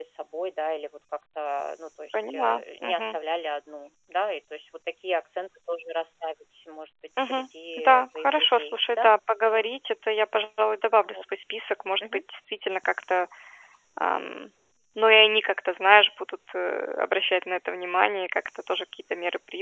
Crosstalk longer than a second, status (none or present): present